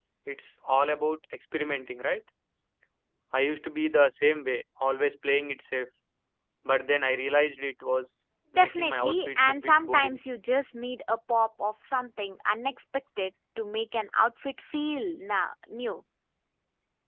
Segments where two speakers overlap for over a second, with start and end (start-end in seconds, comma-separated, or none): 8.6-10.2